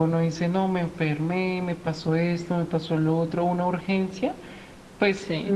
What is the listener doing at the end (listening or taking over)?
listening